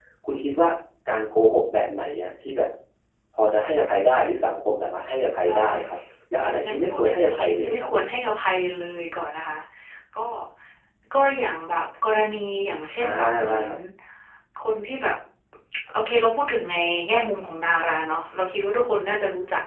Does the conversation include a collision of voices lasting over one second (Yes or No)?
Yes